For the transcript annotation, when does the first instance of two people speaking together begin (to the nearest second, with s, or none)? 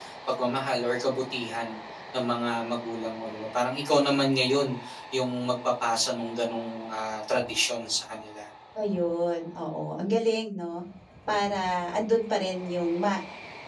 none